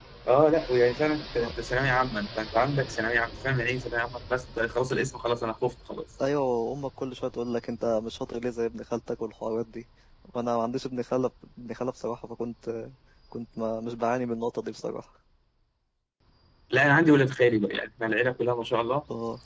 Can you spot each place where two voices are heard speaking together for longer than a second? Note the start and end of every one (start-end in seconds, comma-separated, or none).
none